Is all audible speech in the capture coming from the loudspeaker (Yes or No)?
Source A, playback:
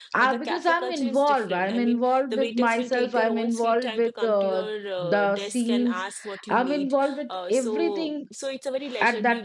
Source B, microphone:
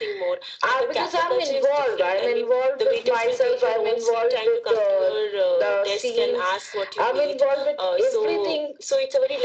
Yes